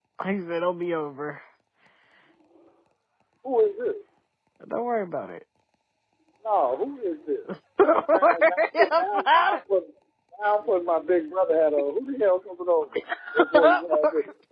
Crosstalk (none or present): present